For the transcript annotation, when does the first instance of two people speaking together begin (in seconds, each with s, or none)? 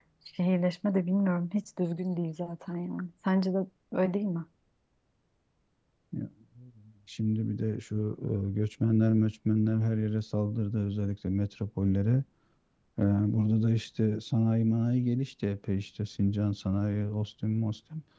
none